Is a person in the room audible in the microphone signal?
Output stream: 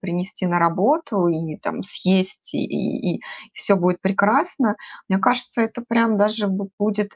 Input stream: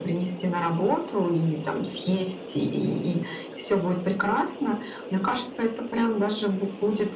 No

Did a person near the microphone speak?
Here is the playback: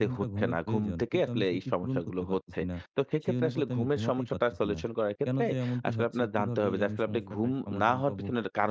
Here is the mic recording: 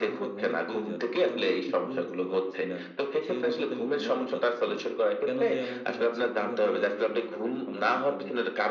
No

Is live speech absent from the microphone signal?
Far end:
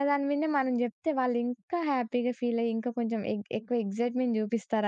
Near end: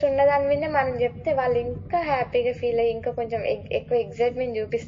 Yes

